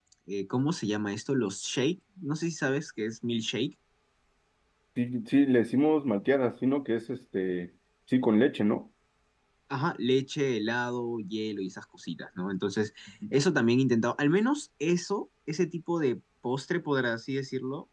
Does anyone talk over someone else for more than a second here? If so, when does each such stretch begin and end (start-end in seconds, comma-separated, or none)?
none